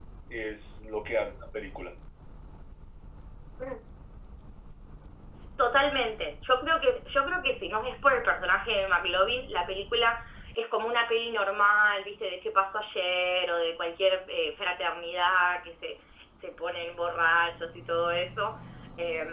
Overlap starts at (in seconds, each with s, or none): none